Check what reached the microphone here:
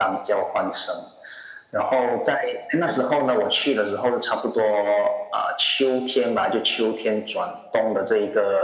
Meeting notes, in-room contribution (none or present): none